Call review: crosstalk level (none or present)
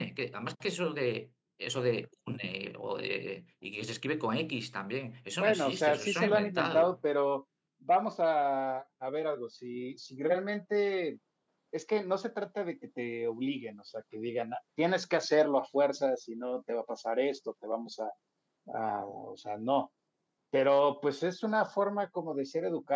present